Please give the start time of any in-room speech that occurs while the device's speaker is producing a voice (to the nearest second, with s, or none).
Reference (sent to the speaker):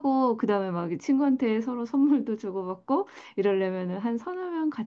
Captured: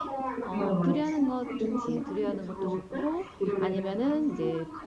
0 s